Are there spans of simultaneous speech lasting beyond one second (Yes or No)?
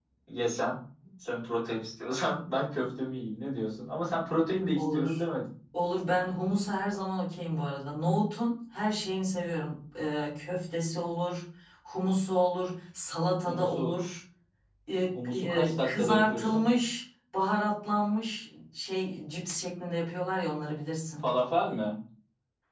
Yes